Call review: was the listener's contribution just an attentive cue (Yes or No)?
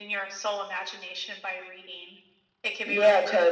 No